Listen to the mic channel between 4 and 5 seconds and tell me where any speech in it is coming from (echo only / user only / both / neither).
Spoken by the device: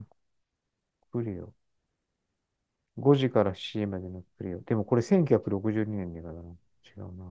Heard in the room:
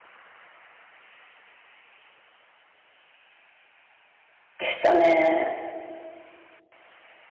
user only